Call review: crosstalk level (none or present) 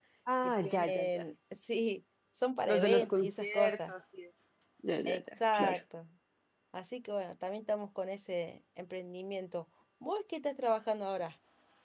present